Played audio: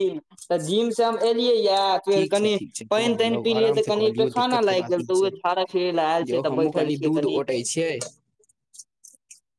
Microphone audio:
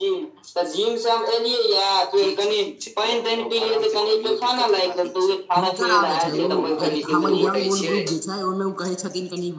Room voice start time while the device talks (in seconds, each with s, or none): 5.5 s